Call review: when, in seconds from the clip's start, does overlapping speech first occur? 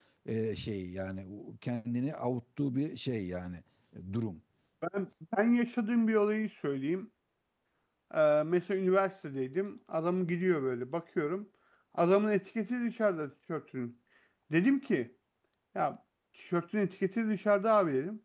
none

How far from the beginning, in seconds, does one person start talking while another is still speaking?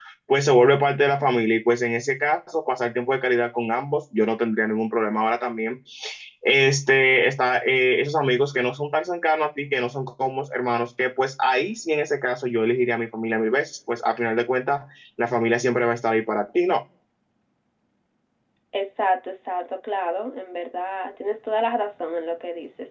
none

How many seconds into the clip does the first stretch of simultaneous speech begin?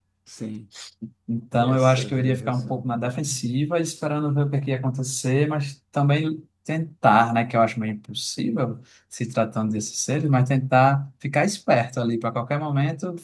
2 s

